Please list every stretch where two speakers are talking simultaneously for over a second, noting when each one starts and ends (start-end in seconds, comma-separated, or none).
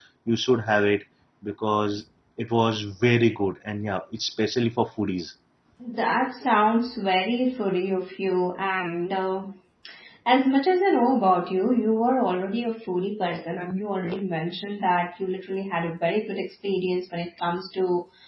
none